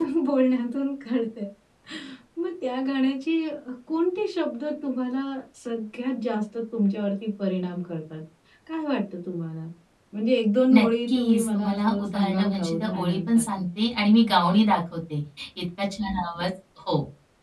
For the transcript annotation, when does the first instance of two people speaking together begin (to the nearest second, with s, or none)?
11 s